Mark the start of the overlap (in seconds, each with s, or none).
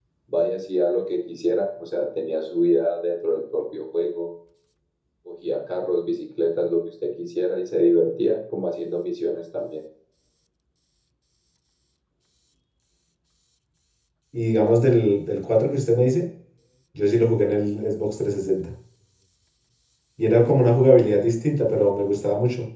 none